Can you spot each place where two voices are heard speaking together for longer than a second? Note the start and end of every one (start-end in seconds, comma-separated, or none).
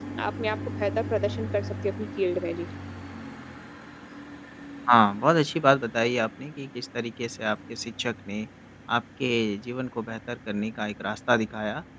none